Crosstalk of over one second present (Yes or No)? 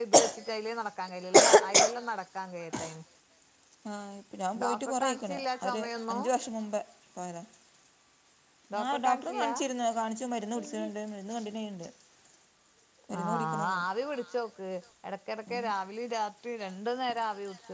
Yes